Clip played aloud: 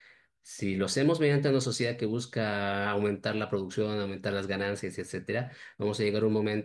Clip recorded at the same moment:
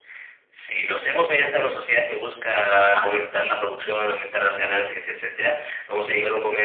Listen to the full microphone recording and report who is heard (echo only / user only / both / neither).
echo only